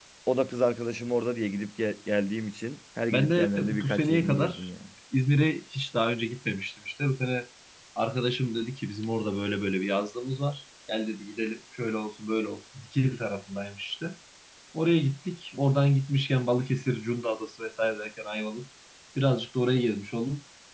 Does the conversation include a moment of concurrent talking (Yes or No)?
Yes